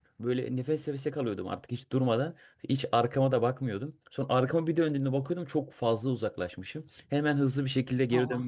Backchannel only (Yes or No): Yes